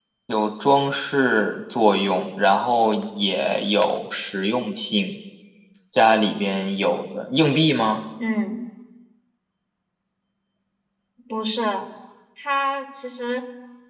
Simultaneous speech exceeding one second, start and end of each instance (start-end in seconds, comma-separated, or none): none